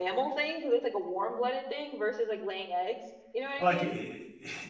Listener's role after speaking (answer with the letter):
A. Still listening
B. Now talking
B